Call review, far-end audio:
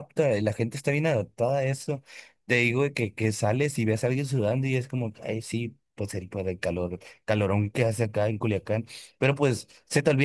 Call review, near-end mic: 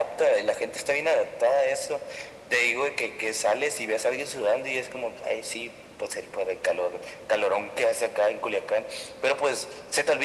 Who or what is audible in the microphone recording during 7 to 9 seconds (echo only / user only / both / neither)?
echo only